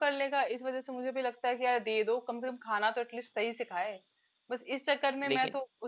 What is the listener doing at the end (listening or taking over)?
listening